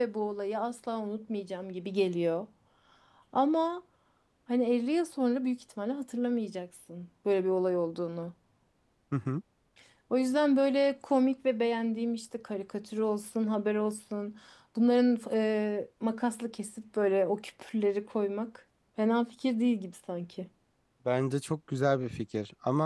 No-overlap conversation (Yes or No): Yes